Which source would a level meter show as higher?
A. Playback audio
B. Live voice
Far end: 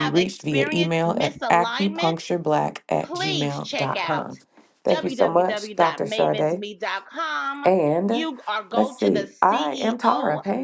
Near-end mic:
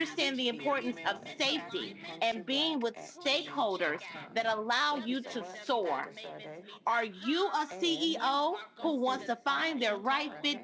B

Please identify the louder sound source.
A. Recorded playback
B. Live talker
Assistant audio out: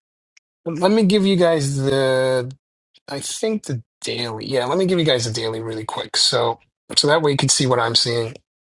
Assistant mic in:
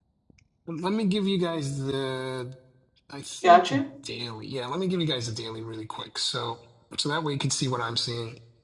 B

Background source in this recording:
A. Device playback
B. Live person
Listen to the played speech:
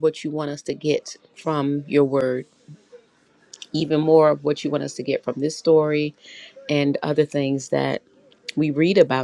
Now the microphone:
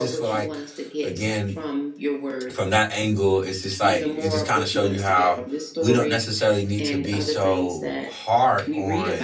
A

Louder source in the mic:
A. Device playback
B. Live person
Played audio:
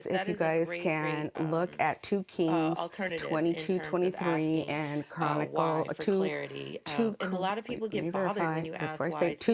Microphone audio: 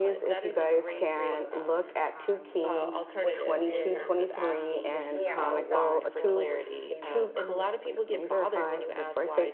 A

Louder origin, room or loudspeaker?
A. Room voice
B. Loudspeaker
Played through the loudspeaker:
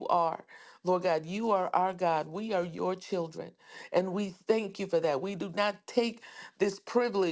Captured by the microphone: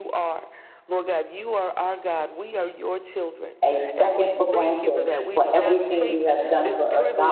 A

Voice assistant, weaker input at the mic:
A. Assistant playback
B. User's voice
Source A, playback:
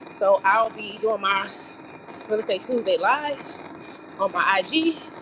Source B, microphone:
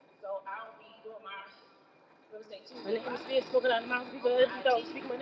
A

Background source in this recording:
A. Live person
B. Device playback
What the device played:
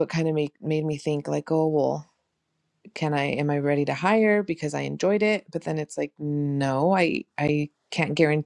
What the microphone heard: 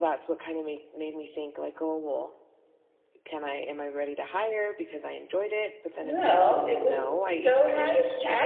B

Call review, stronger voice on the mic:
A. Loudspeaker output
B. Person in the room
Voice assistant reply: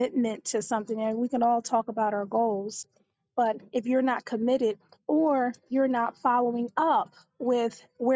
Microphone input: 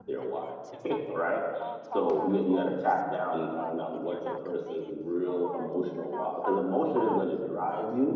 B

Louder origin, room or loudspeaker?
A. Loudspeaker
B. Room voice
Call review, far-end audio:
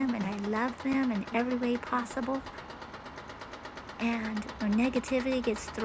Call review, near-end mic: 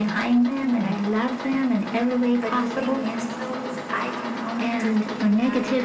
A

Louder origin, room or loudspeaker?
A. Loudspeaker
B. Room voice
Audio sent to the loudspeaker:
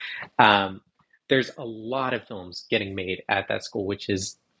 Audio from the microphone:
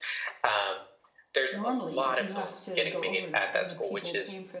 A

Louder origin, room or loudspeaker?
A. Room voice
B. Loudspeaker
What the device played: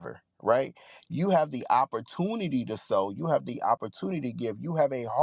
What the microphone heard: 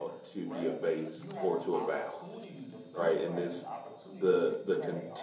A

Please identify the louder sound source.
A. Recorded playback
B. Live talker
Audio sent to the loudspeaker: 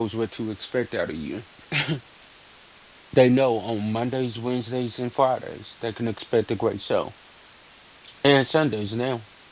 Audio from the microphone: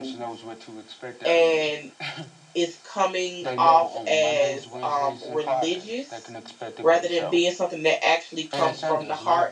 B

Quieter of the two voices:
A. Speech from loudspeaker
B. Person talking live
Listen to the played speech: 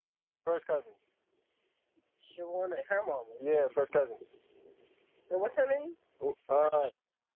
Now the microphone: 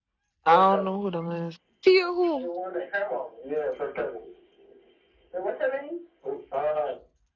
A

